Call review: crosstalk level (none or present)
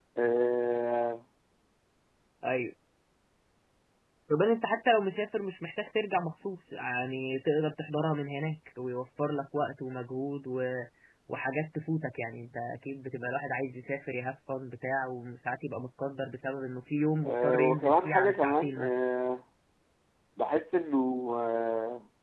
present